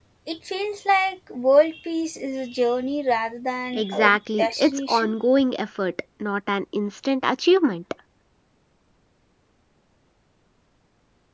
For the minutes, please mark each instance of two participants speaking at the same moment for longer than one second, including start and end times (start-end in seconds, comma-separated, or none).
3.7-5.1